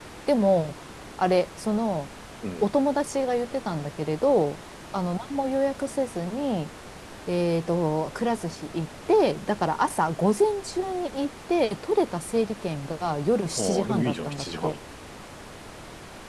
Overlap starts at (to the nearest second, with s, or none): 14 s